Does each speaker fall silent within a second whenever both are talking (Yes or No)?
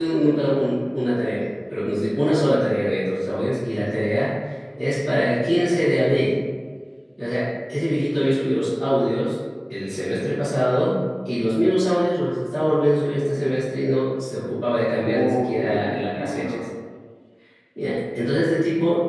No